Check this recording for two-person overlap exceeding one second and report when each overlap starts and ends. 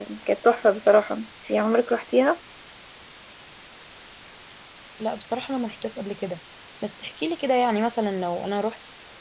none

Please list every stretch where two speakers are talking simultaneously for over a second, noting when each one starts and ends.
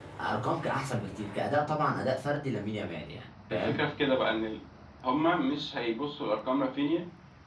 none

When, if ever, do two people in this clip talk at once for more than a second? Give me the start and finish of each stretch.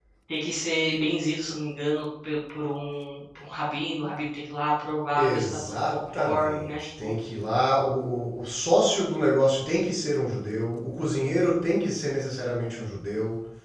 5.2-7.1

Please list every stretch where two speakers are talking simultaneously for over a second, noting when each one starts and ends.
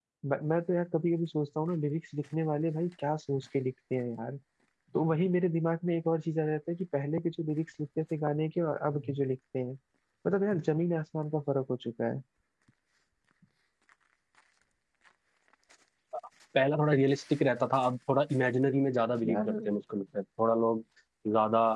none

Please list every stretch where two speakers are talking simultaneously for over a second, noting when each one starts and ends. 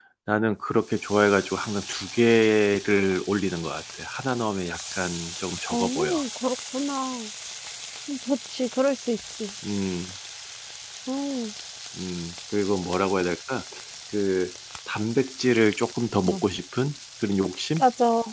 none

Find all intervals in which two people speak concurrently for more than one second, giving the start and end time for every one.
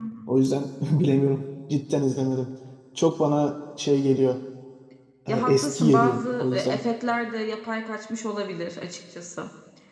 5.3-6.8

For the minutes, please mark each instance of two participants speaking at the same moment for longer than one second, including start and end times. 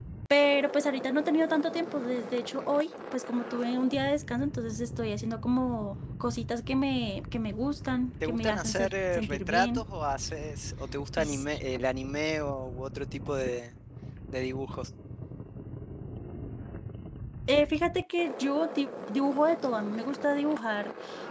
8.2-9.8

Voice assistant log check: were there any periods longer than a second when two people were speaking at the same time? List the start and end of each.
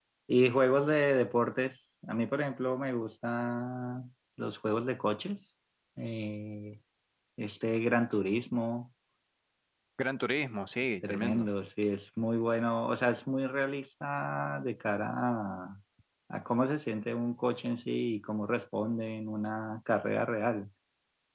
none

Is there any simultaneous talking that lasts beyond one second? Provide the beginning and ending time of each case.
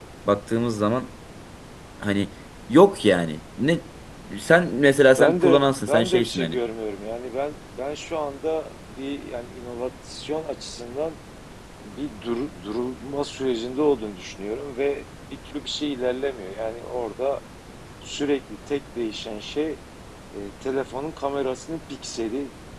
5.2-6.6

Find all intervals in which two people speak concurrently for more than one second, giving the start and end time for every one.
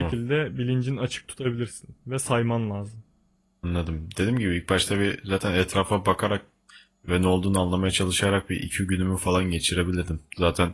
none

